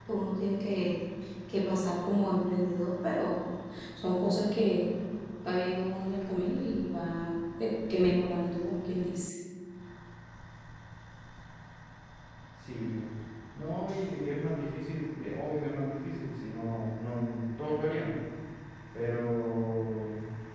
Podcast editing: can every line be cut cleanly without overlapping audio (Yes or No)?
Yes